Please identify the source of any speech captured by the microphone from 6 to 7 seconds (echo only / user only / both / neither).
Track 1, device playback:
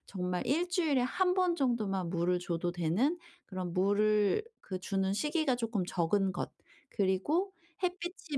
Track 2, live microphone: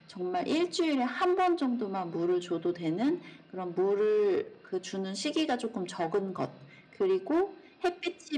echo only